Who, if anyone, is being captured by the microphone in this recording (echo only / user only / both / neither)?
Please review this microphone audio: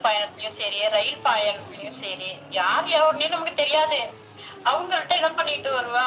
echo only